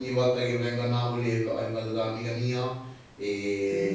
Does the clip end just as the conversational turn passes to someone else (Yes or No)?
No